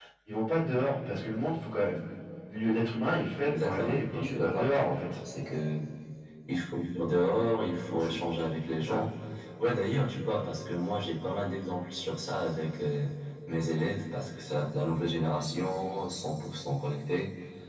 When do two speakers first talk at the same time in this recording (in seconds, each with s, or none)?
3.5 s